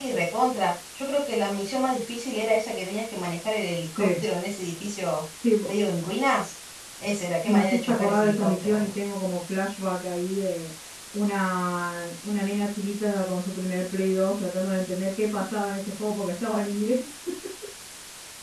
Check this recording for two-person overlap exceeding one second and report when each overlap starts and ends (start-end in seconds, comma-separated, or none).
7.5-8.9